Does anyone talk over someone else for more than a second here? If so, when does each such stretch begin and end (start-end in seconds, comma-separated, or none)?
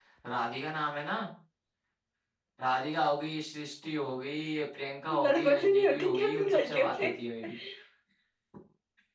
5.2-7.1